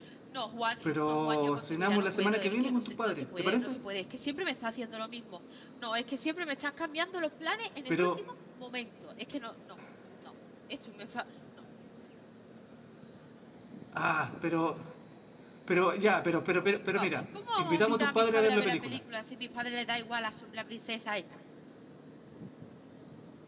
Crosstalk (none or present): present